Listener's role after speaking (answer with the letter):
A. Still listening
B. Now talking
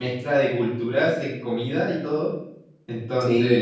A